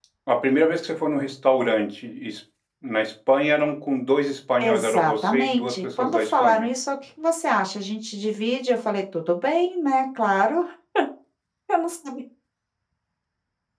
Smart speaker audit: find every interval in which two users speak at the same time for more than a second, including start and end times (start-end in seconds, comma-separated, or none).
4.6-6.7